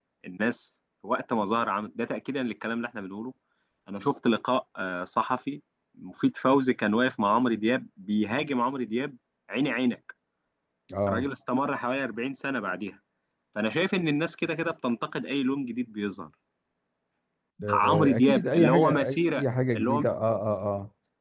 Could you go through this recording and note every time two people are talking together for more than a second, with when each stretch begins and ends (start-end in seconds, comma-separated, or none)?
17.7-20.0